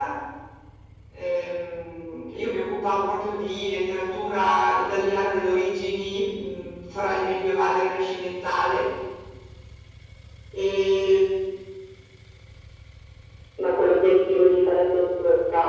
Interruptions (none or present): none